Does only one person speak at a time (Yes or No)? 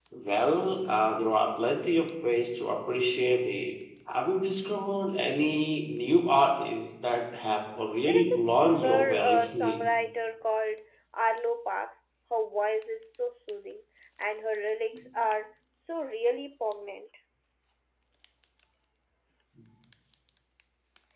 No